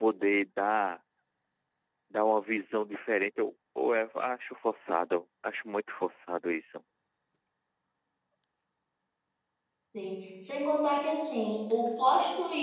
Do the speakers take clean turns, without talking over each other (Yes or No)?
Yes